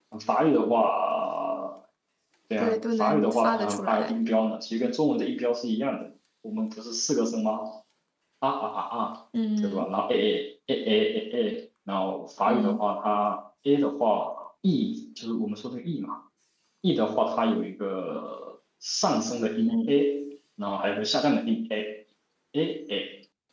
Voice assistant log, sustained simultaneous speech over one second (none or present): present